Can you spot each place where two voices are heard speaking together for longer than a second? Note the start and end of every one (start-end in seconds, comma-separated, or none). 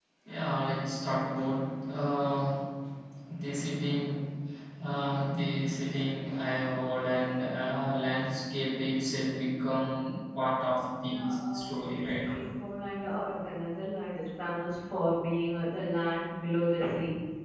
11.0-12.2